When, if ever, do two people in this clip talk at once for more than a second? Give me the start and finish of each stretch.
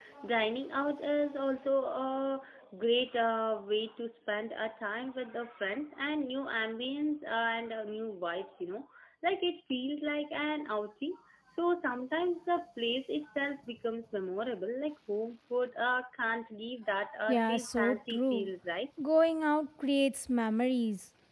17.3-18.5

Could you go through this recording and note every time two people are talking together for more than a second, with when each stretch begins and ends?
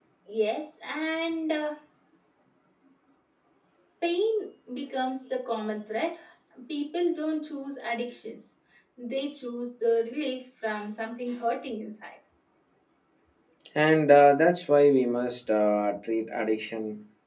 none

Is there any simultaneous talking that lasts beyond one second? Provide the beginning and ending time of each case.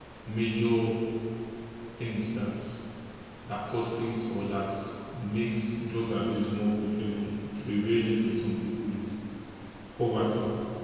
none

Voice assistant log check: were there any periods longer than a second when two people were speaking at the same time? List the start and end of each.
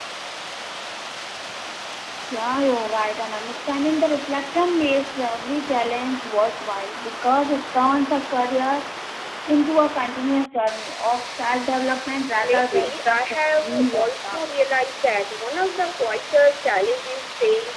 12.4-14.6

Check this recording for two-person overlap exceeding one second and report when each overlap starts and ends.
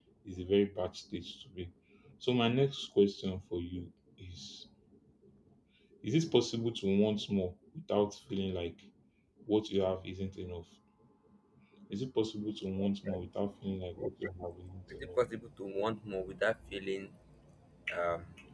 none

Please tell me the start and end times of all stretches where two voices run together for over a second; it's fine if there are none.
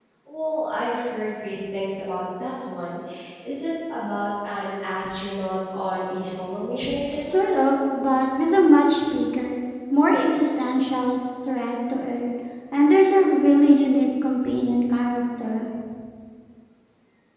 none

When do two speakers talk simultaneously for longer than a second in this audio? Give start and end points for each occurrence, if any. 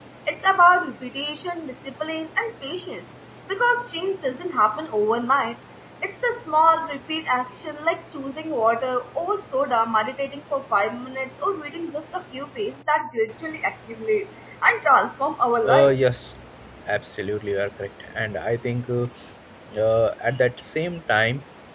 none

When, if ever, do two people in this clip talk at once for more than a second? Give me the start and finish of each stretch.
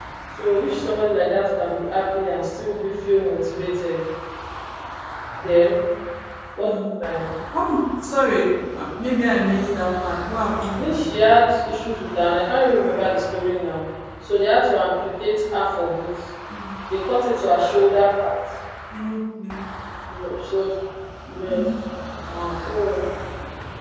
none

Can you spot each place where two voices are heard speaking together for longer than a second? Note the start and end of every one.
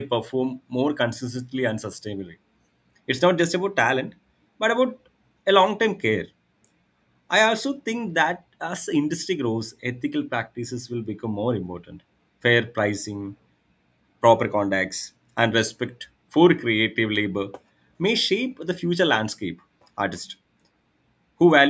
none

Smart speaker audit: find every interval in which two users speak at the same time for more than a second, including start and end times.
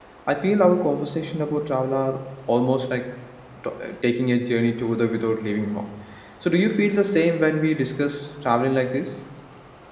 none

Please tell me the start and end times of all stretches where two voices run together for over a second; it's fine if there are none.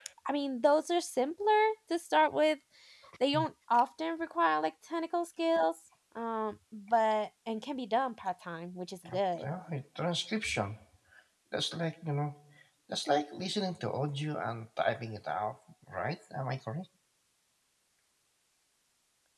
none

